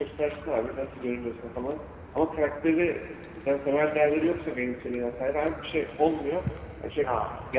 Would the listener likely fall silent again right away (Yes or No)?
Yes